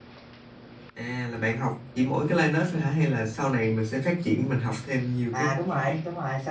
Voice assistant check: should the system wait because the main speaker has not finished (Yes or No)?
No